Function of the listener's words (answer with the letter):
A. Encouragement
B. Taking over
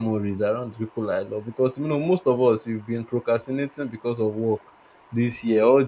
A